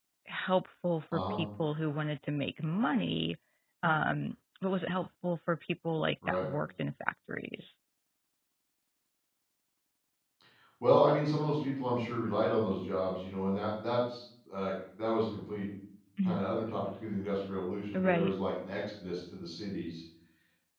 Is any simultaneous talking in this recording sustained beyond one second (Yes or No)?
No